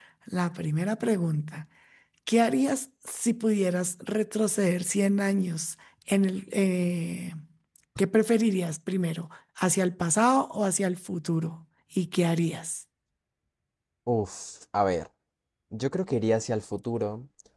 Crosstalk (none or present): none